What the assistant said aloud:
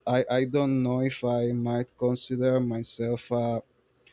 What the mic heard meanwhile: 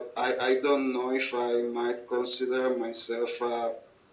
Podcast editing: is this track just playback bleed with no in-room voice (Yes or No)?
Yes